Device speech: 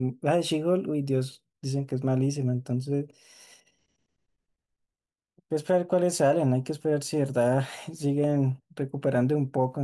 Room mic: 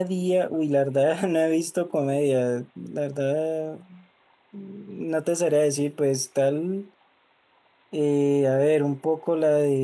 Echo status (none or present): none